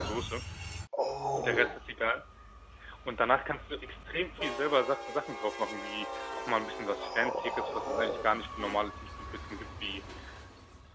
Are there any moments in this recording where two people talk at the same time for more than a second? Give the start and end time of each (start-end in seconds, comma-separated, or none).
7.0-8.3